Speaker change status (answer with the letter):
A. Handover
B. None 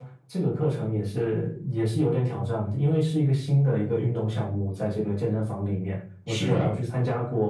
B